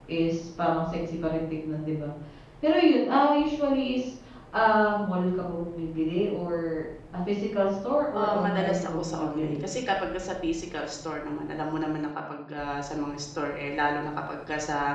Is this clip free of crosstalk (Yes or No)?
No